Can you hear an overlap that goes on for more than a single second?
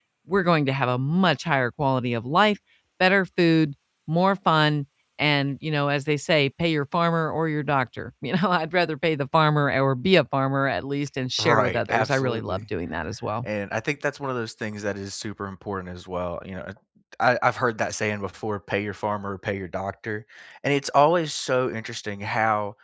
Yes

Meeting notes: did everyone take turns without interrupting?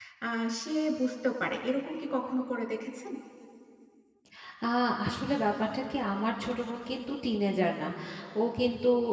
Yes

